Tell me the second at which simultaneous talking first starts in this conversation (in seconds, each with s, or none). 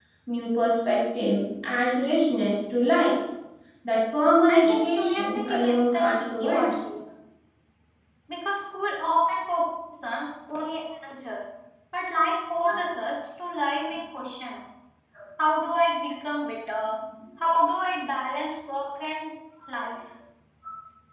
4.5 s